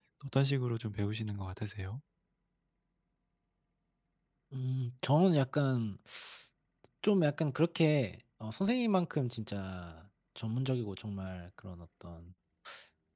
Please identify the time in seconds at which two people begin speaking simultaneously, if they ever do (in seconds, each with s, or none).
none